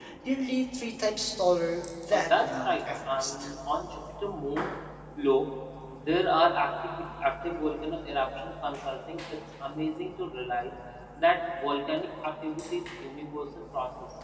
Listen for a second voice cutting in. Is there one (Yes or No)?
Yes